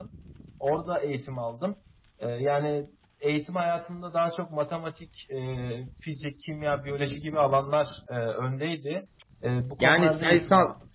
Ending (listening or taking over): taking over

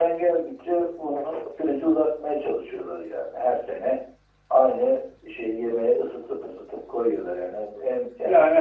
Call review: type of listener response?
taking over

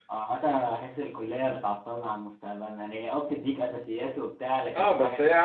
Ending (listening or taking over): taking over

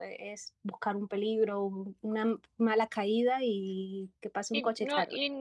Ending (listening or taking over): taking over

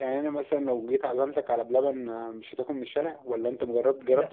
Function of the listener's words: taking over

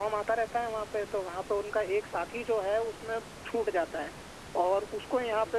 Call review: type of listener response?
listening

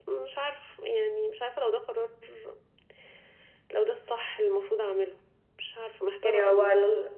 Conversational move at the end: taking over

